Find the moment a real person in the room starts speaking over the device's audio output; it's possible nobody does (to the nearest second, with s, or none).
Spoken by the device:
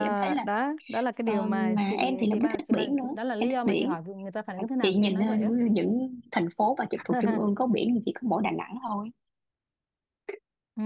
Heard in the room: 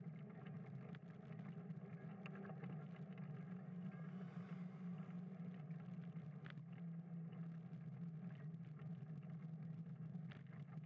none